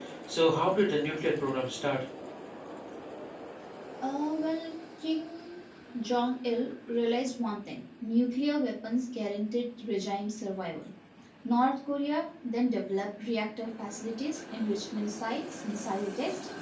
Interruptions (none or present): none